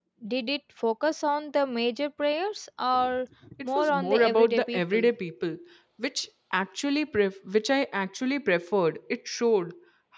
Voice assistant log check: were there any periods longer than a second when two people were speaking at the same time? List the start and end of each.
3.8-5.1

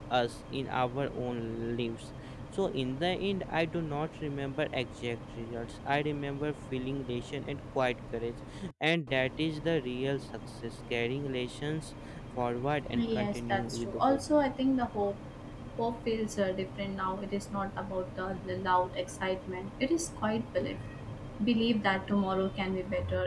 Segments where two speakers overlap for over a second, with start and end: 12.9-14.2

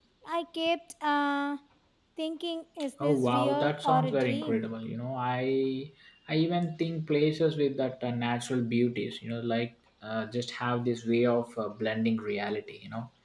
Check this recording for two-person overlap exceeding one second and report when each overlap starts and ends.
3.0-4.7

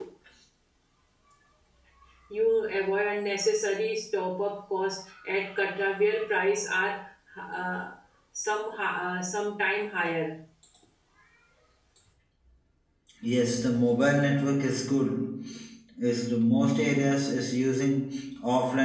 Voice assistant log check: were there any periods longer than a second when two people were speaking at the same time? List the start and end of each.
none

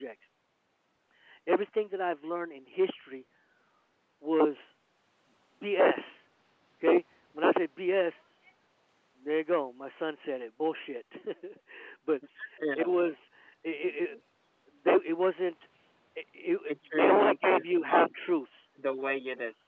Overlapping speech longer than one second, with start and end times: 16.7-18.1

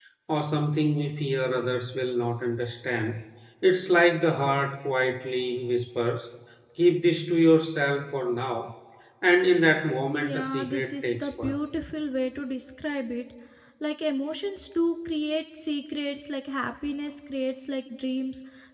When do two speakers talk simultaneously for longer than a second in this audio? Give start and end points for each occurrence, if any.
10.2-11.5

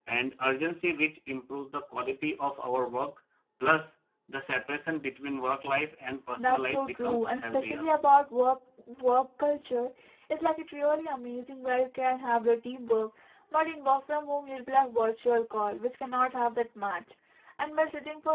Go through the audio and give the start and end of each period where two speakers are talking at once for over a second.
6.4-7.9

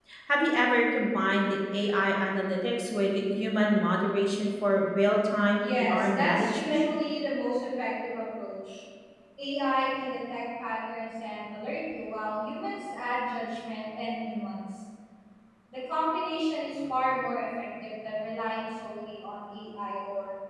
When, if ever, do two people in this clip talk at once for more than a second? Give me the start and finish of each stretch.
5.6-6.9

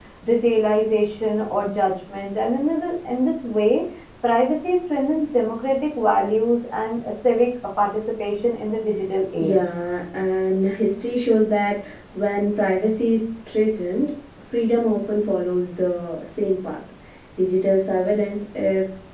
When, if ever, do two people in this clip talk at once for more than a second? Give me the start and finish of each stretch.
none

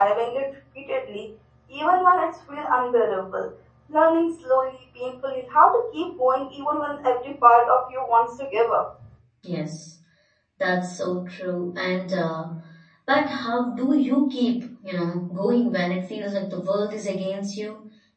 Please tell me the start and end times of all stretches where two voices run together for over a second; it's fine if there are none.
none

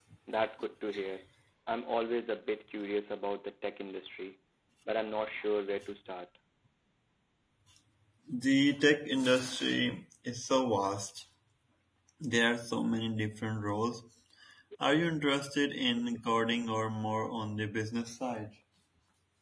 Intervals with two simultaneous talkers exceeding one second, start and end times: none

